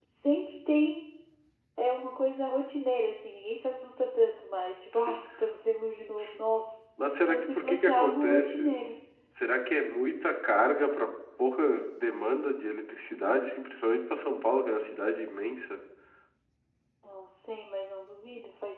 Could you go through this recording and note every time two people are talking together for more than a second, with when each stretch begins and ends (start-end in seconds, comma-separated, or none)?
7.3-8.7